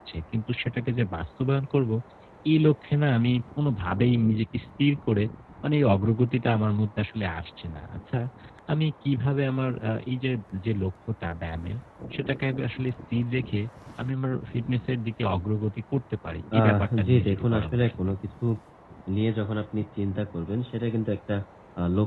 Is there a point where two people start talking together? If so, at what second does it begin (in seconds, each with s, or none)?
16.5 s